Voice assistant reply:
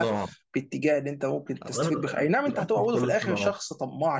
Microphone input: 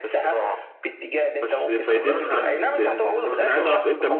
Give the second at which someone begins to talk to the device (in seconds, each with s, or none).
1.4 s